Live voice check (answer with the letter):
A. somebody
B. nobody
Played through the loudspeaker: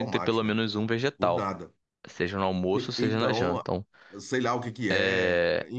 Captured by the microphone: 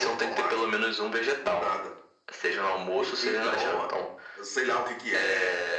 B